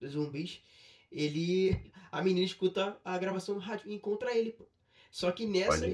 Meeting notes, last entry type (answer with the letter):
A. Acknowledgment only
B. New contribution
A